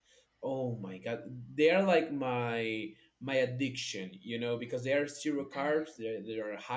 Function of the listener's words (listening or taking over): listening